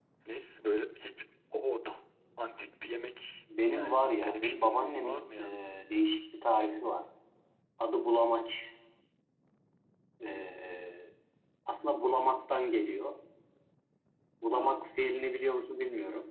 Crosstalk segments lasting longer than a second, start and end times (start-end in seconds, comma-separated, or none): 3.7-5.4